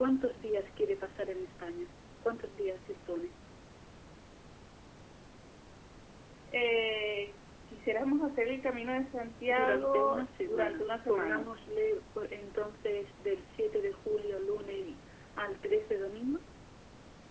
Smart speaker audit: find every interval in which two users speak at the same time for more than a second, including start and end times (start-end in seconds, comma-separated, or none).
9.5-11.6